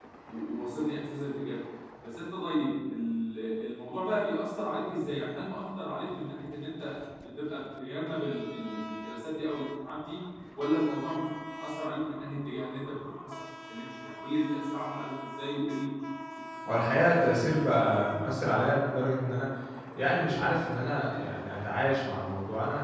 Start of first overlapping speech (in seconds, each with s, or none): none